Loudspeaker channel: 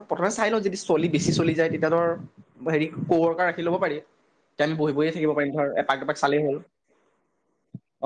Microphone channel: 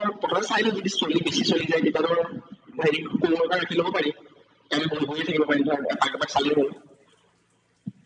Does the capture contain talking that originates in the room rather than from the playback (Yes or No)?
No